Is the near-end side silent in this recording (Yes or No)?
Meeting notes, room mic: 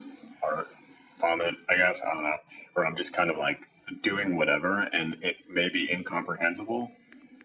Yes